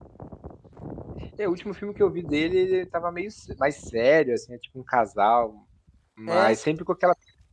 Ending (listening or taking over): listening